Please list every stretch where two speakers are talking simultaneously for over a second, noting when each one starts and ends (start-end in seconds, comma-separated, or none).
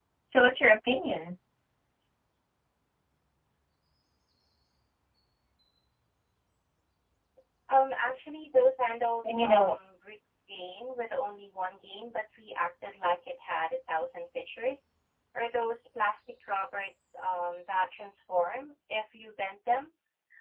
none